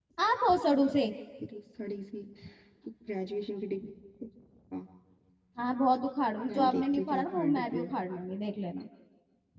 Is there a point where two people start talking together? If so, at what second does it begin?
6.5 s

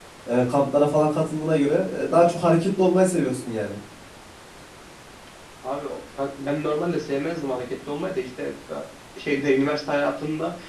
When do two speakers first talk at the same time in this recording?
none

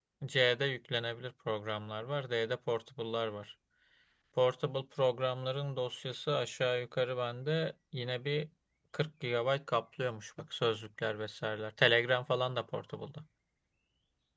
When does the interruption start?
none

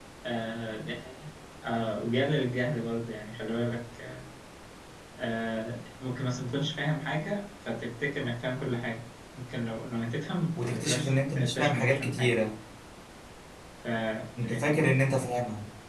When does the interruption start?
10.6 s

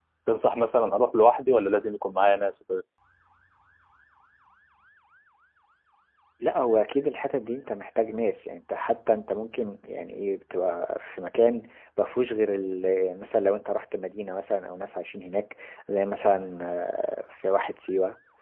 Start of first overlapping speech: none

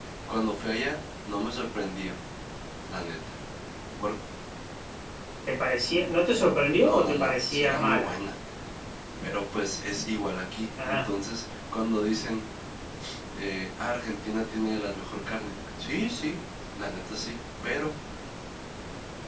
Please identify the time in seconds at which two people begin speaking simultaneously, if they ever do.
6.8 s

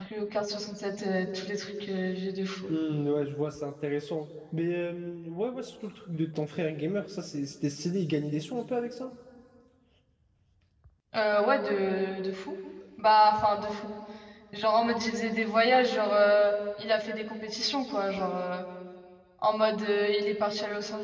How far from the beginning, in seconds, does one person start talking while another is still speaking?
none

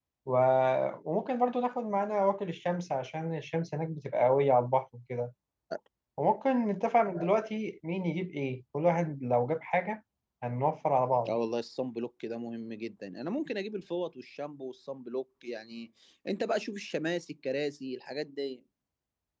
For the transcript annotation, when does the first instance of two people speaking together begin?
none

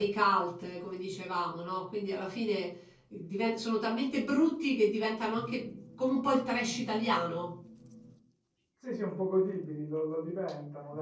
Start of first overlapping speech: none

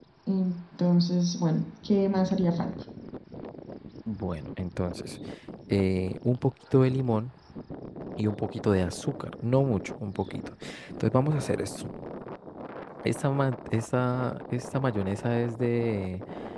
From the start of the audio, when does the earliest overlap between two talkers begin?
none

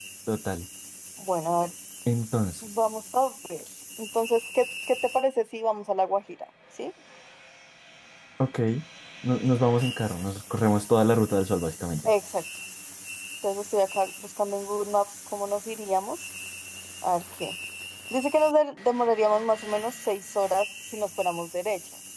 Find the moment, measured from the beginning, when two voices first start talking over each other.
none

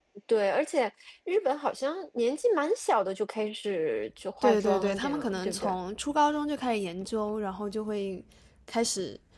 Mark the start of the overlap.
4.4 s

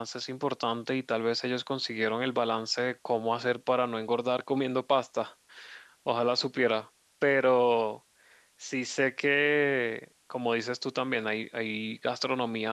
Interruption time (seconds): none

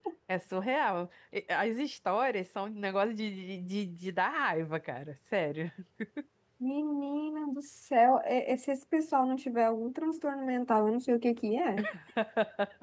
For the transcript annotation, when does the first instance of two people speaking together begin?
none

